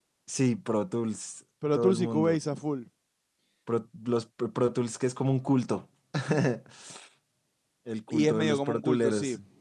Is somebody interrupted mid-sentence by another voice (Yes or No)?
Yes